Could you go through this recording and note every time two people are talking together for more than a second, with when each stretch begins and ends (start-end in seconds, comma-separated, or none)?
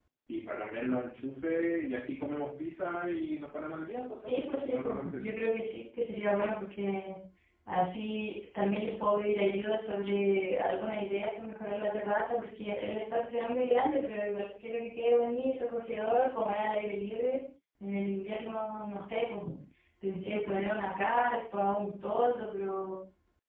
4.3-5.5